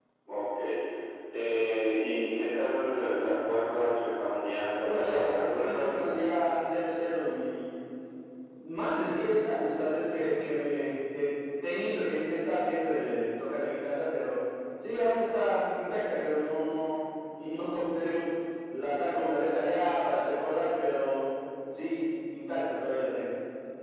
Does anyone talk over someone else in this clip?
Yes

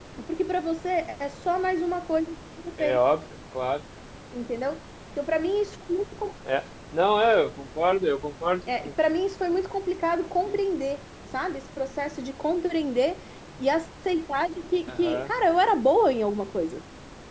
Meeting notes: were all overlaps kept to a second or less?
Yes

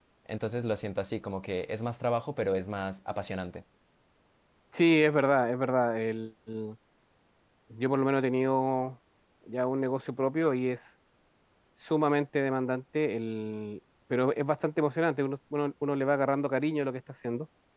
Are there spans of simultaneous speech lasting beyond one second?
No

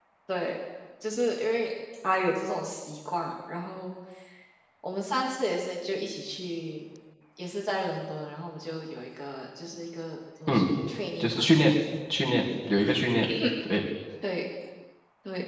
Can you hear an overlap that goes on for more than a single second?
No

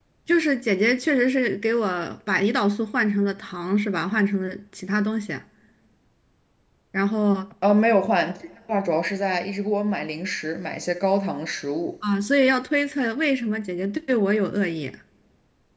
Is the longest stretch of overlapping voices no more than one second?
Yes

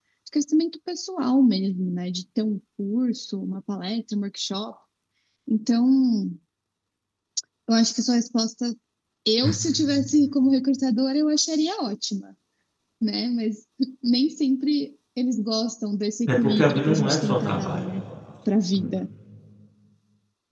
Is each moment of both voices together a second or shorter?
No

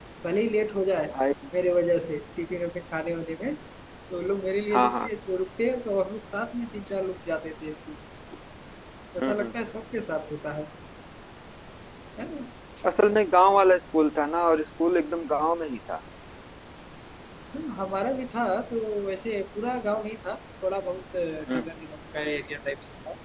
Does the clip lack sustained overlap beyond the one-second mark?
Yes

